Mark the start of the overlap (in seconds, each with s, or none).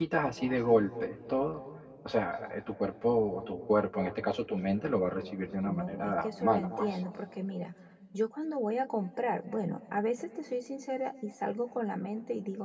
5.7 s